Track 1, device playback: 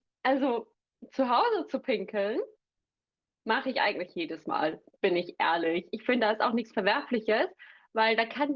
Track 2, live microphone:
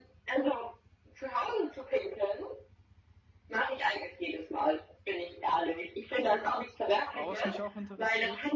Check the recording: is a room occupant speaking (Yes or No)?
Yes